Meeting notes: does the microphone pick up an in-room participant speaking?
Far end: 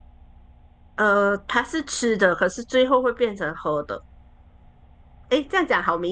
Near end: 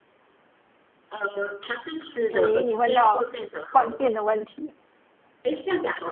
Yes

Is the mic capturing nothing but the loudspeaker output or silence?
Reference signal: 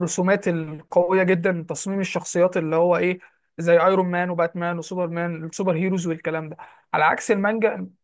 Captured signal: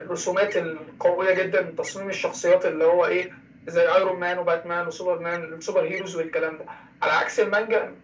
Yes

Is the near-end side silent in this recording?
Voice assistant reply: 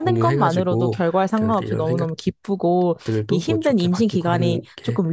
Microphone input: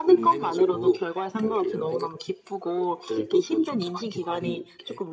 Yes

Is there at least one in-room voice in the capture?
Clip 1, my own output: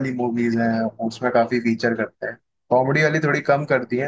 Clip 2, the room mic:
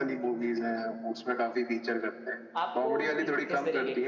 Yes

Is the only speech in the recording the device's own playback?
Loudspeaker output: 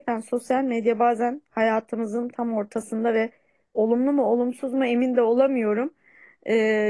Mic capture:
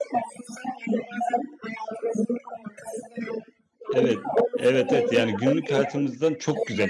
No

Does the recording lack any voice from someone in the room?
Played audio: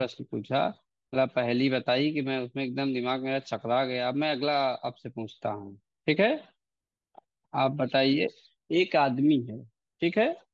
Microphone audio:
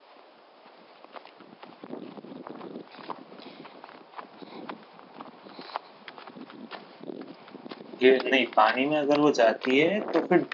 No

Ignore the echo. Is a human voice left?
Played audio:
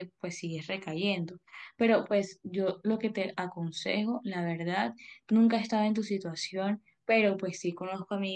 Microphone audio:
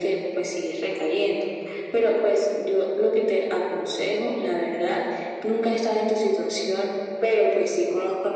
No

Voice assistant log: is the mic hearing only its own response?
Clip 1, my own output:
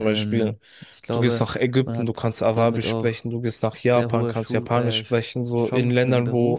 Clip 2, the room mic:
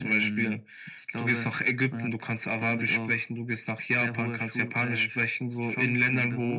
Yes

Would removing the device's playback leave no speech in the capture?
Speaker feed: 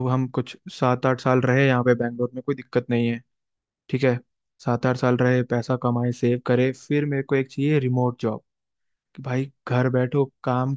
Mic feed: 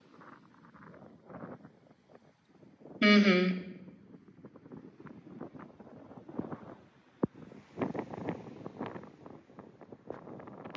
No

